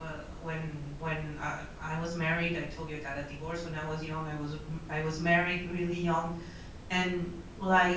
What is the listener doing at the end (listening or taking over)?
listening